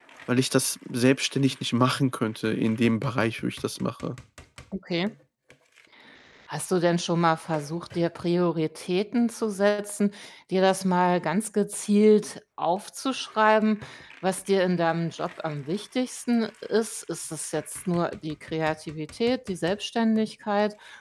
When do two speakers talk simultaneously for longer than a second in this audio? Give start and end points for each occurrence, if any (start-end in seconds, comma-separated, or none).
none